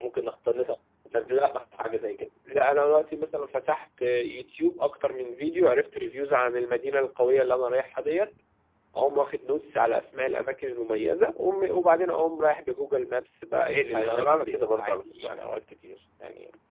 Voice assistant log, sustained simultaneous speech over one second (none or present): present